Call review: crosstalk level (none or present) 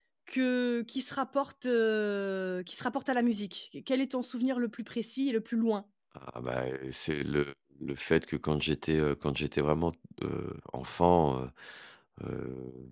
none